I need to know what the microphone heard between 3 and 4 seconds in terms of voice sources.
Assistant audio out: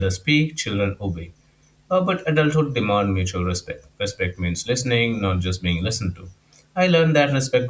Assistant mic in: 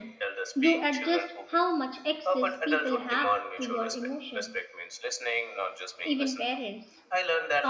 both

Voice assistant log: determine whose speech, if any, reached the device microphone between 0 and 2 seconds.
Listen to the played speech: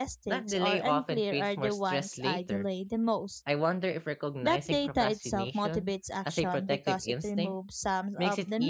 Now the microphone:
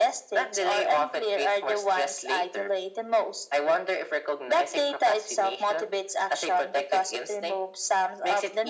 echo only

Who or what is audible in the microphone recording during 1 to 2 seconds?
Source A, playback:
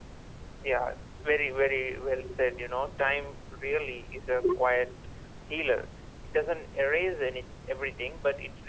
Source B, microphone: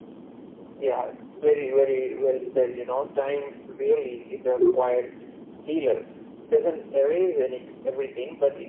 echo only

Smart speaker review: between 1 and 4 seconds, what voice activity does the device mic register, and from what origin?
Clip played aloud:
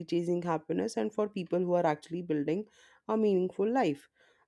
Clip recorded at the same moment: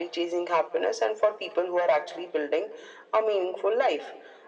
echo only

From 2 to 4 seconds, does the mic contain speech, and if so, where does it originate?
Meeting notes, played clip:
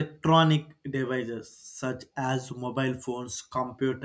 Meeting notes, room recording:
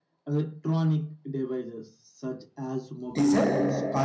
both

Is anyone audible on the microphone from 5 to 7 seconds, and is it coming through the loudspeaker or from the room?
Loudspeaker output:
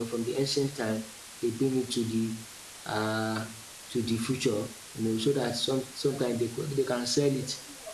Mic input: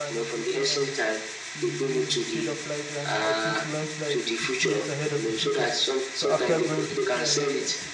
both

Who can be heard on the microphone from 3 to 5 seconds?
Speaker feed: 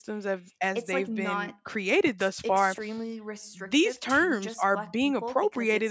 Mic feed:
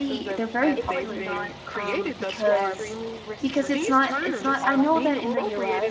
both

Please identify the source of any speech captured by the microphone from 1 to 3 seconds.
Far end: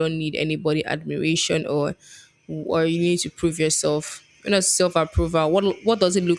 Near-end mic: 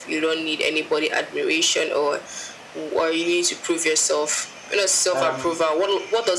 echo only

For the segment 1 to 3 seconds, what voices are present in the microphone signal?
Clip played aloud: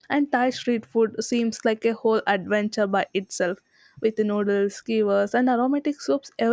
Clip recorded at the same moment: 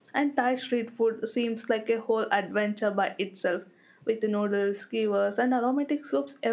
echo only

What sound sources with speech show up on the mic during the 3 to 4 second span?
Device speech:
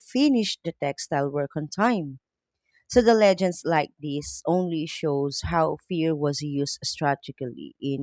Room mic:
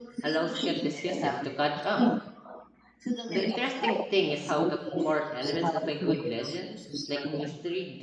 both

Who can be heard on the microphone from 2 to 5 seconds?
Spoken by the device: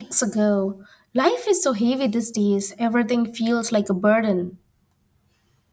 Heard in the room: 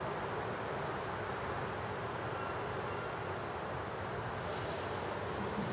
neither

